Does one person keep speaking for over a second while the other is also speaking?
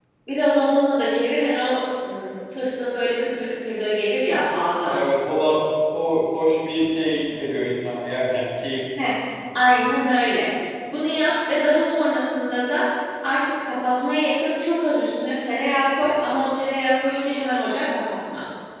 No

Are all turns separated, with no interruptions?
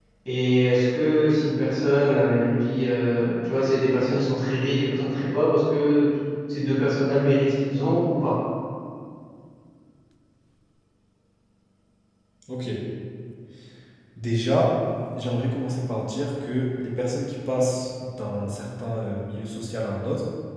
Yes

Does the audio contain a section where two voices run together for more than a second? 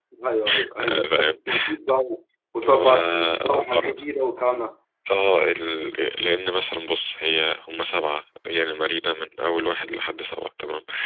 Yes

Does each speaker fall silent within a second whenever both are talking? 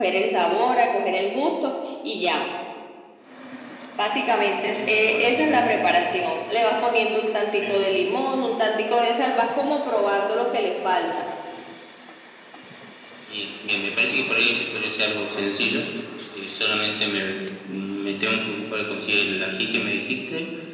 No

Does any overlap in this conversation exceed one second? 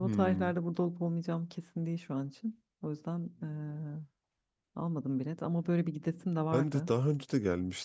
No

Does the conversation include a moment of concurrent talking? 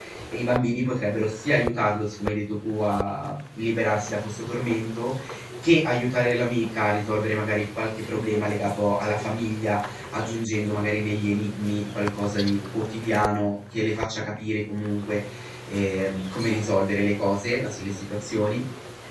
No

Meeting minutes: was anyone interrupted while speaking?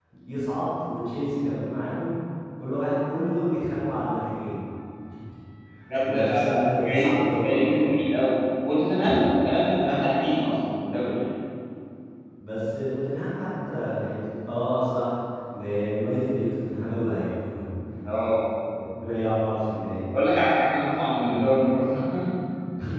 Yes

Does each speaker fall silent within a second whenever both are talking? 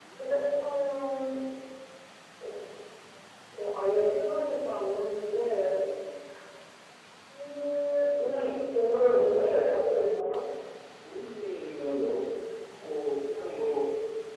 Yes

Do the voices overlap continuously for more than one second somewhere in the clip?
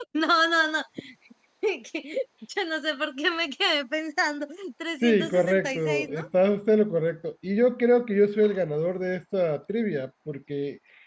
Yes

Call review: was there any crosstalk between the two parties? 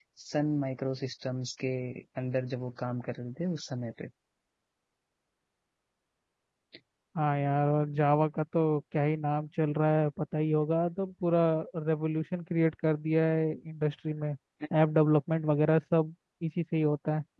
No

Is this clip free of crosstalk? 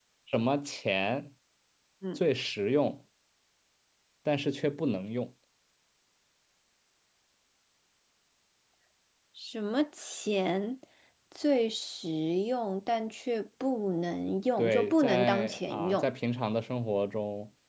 No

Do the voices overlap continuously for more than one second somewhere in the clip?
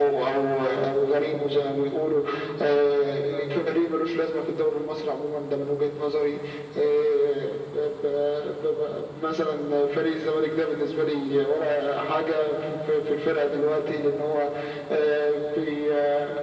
No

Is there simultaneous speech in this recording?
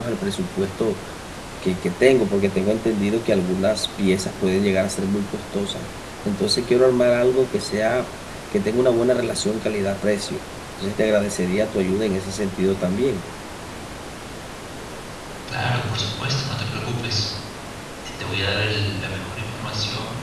No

